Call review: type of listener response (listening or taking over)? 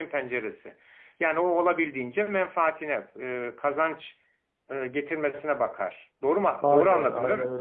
taking over